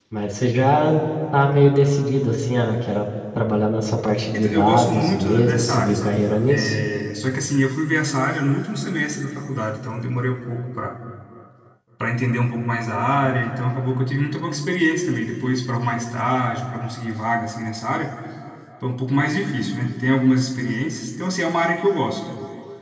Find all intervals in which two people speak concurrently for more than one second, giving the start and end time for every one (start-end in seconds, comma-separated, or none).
4.3-6.7